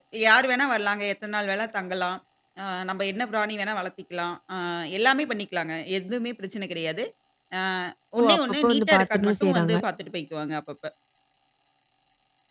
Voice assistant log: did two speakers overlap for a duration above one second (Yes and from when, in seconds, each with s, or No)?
Yes, from 8.2 s